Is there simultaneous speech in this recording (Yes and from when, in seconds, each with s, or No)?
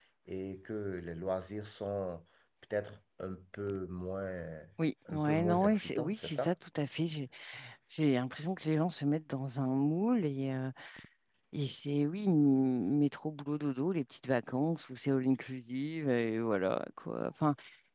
Yes, from 5.1 s